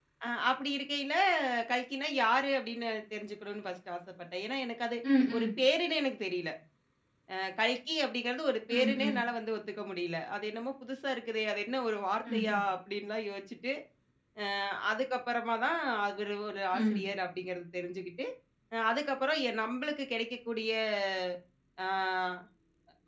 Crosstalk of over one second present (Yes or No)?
No